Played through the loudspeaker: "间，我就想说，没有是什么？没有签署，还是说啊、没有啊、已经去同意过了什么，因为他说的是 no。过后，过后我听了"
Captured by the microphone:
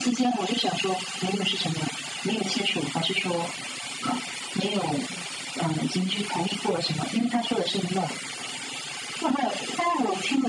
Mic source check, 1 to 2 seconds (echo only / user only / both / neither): echo only